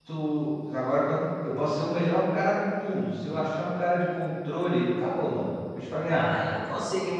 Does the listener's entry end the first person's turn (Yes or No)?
Yes